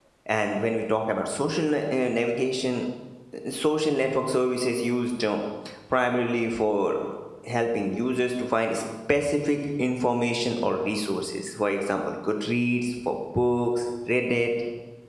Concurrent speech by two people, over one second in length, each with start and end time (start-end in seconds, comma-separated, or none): none